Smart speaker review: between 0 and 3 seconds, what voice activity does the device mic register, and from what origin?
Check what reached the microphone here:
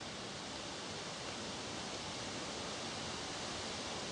neither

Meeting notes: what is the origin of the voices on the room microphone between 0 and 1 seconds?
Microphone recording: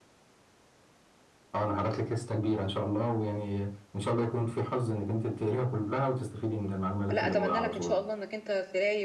neither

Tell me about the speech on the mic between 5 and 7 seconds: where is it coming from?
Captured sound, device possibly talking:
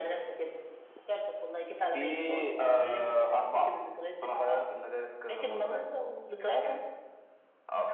echo only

